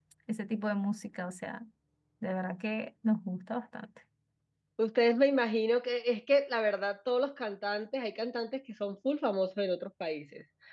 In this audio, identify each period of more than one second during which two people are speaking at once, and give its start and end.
none

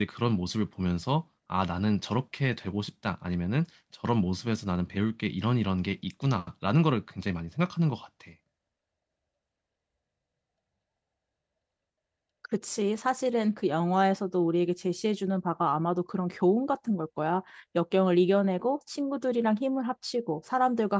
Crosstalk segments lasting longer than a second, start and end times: none

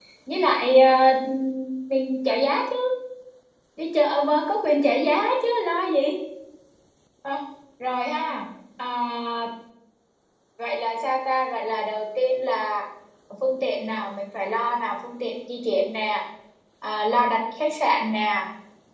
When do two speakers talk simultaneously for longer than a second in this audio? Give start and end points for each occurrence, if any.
none

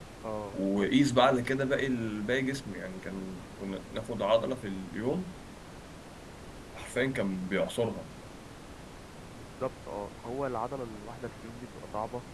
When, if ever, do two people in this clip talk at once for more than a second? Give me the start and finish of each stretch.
none

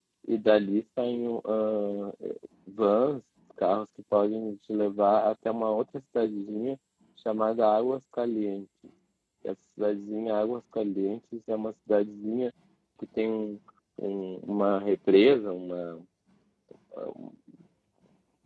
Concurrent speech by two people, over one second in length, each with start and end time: none

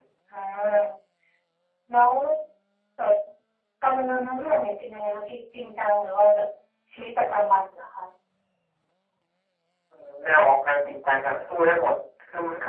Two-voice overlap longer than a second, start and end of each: none

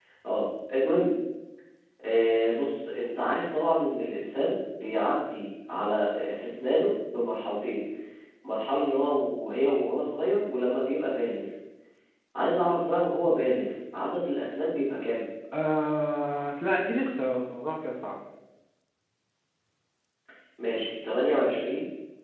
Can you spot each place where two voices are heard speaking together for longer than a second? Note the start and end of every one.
none

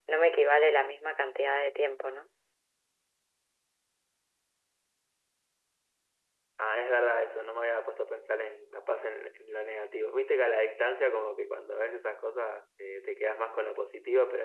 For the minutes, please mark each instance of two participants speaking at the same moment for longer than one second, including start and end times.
none

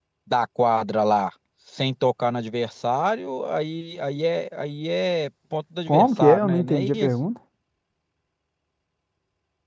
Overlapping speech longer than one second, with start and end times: 5.9-7.1

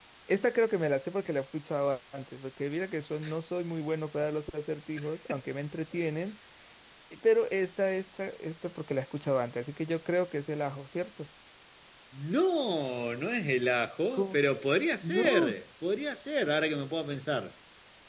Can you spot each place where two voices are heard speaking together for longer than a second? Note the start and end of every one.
none

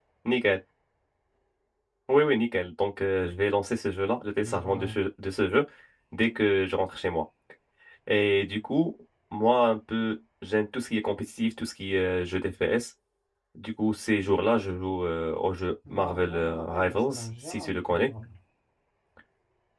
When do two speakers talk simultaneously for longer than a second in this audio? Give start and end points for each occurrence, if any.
15.9-18.1

